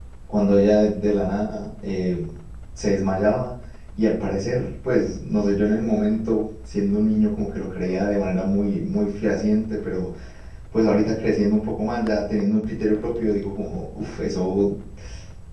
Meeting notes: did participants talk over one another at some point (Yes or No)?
No